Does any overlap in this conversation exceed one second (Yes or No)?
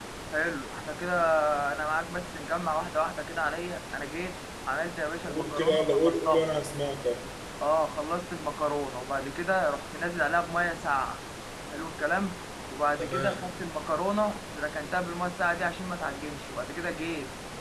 Yes